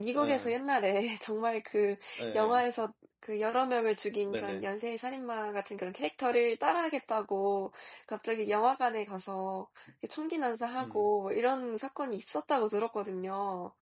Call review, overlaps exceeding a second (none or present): none